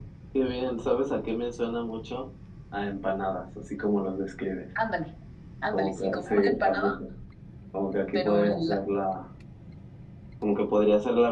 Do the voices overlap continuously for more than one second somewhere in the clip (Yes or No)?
Yes